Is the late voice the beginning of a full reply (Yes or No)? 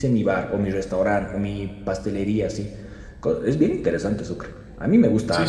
Yes